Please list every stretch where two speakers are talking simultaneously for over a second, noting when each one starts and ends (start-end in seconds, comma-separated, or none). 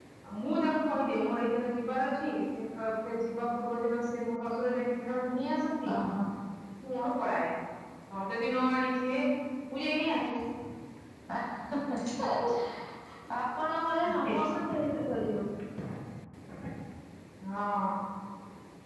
none